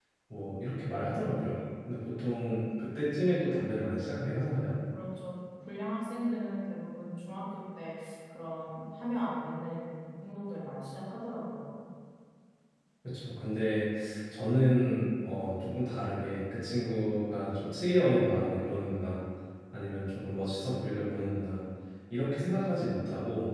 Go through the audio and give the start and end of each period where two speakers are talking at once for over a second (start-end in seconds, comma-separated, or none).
none